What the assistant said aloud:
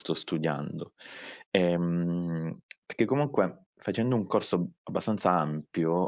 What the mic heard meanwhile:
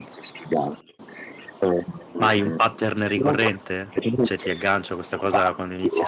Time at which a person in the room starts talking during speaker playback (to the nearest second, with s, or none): 2 s